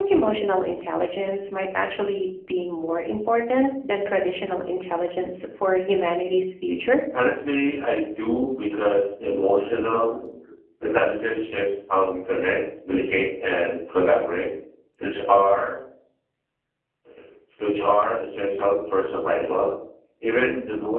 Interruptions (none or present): none